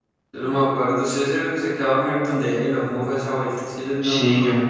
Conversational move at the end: taking over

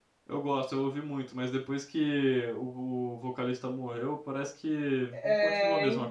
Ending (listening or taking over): taking over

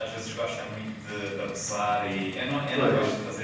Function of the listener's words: listening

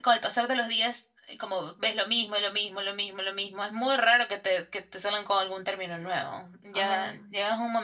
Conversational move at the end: listening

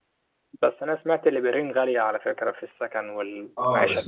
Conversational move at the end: taking over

